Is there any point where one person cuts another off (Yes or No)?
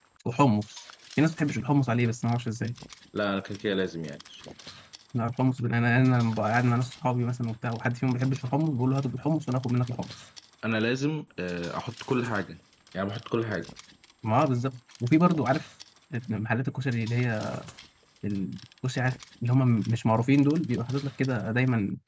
No